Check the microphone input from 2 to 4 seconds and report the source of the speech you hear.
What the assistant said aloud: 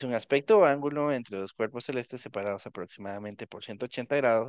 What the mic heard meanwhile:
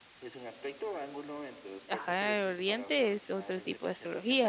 both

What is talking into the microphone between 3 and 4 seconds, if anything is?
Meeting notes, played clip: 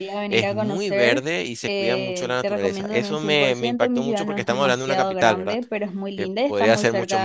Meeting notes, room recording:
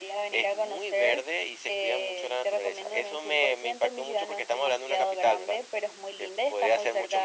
echo only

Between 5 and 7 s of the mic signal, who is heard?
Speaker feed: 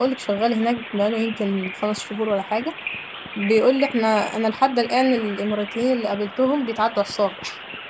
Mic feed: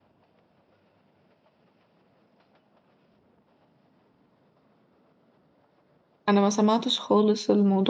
user only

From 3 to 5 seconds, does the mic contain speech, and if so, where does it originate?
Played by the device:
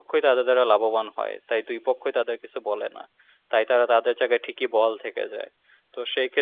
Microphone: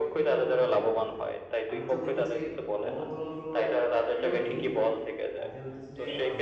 both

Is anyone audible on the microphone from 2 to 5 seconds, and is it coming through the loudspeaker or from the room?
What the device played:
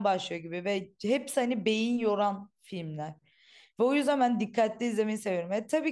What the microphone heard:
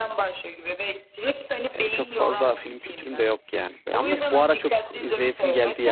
both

